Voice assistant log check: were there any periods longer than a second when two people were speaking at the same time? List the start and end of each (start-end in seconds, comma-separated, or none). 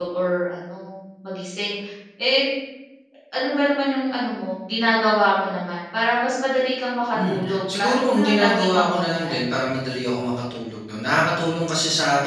7.3-9.4